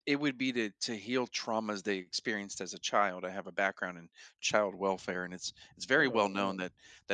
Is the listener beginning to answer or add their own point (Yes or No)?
No